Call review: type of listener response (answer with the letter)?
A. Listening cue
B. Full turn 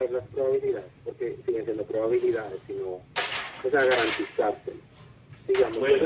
B